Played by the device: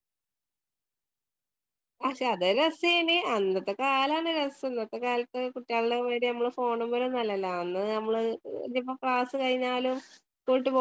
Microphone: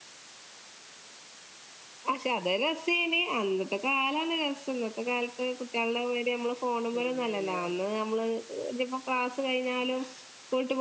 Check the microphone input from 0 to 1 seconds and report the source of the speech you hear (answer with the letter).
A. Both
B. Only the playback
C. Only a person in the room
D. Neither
D